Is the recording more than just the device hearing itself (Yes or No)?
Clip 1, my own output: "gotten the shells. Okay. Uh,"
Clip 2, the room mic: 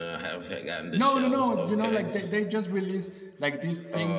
Yes